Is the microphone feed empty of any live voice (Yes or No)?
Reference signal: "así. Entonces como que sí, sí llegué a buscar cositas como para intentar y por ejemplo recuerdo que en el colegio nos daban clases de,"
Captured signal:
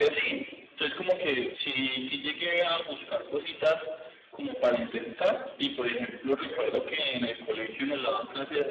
Yes